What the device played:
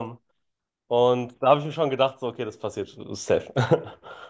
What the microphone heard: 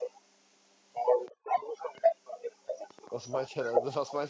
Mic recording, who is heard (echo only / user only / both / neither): both